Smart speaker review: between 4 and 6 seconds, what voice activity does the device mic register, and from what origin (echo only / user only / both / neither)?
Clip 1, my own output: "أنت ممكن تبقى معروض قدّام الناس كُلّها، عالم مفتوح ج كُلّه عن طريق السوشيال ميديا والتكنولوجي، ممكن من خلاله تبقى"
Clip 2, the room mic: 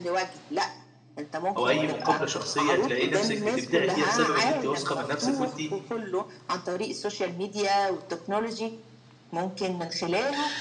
both